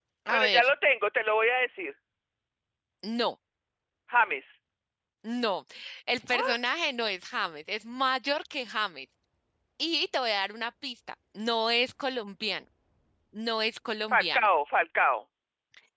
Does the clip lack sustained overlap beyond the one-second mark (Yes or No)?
Yes